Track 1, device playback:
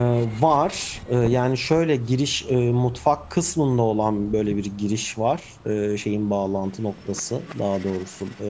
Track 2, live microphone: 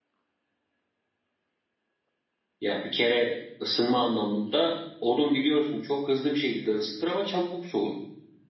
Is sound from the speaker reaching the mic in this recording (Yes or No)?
No